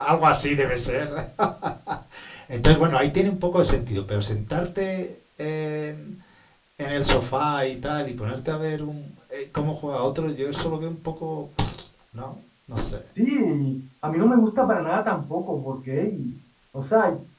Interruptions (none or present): none